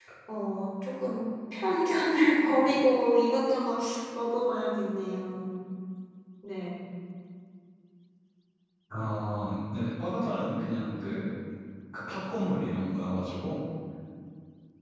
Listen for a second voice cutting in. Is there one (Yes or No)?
No